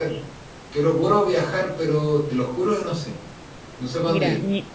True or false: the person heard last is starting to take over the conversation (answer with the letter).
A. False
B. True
B